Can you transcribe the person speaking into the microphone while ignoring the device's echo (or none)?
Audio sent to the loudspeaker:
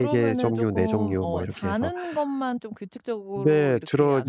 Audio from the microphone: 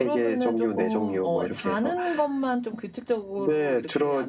none